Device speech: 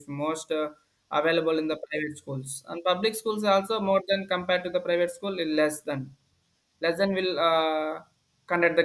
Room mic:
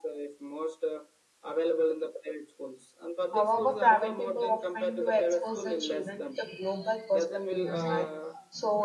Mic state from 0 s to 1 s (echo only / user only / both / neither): echo only